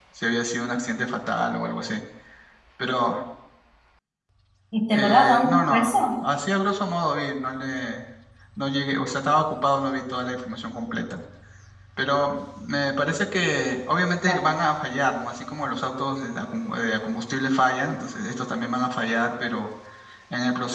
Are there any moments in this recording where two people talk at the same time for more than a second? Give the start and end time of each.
4.9-6.2

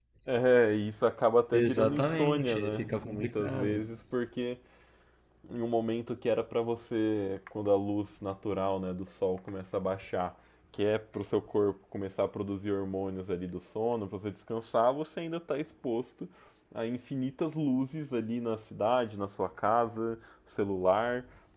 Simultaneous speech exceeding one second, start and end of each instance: 1.5-3.8

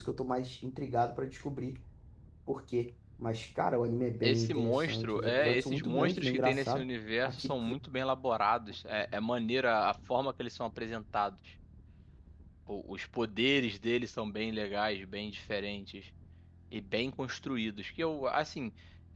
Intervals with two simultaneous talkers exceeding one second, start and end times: 4.2-6.9

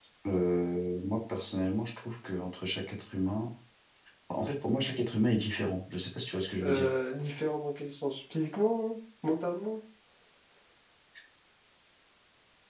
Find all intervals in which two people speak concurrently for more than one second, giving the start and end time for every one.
none

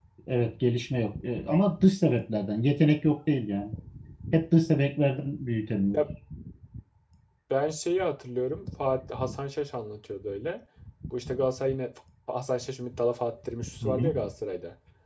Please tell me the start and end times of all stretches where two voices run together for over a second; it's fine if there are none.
none

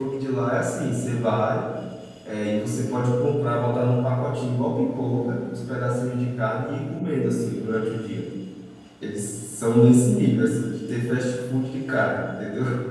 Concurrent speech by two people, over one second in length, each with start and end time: none

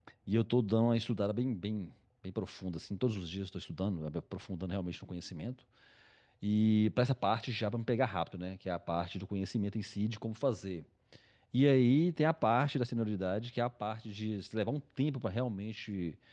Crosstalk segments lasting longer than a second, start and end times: none

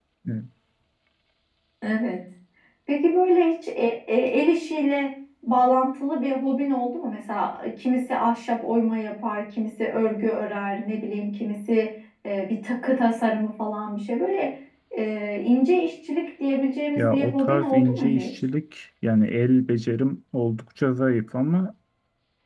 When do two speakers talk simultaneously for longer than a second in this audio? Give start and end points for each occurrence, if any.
17.0-18.3

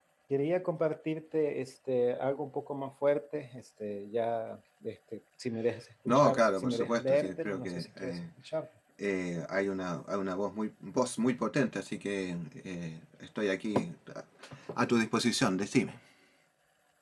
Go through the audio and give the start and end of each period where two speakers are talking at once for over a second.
6.1-8.2

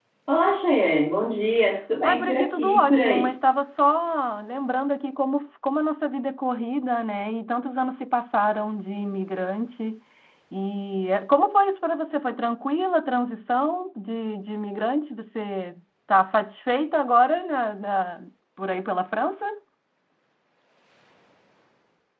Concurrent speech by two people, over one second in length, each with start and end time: 2.0-3.3

